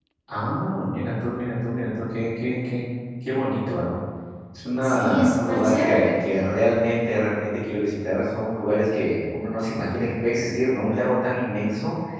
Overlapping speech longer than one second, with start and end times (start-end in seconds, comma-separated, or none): 4.8-6.2